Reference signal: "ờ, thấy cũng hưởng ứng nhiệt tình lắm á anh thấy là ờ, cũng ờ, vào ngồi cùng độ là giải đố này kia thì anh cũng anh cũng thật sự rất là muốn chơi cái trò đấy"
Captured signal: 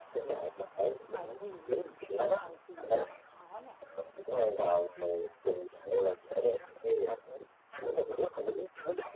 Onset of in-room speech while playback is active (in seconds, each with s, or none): 1.1 s